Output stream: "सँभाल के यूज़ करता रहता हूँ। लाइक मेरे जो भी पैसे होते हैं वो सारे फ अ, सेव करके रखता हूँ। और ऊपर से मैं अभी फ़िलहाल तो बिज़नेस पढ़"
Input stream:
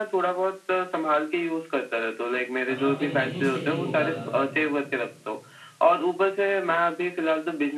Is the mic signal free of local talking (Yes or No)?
No